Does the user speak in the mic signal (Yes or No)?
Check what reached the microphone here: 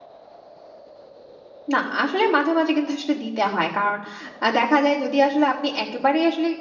Yes